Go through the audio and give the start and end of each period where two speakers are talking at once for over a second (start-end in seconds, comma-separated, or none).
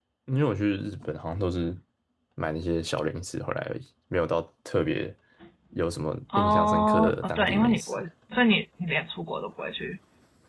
6.4-8.0